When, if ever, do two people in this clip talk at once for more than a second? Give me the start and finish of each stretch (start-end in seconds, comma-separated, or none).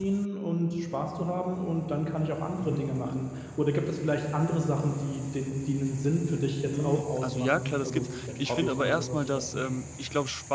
6.7-9.7